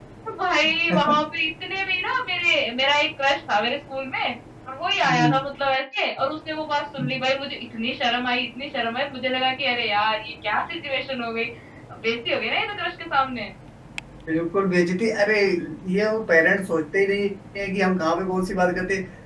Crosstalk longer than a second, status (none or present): none